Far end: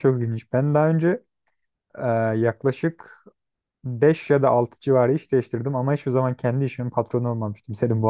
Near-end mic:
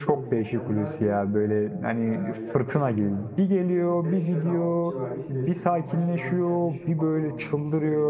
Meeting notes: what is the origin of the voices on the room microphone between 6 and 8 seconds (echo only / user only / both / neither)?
both